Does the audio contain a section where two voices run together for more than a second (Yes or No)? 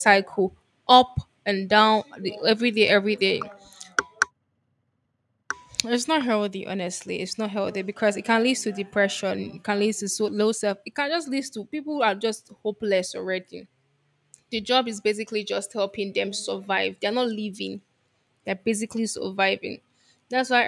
No